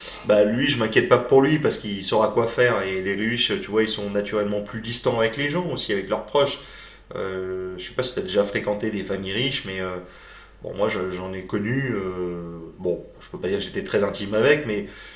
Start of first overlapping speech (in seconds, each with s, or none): none